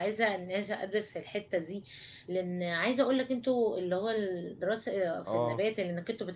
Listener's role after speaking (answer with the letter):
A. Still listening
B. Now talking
A